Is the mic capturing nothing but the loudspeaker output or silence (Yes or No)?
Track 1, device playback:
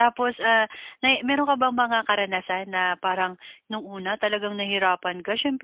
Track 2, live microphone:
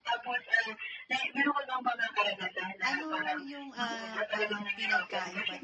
No